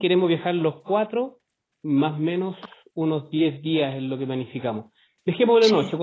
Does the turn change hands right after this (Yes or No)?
No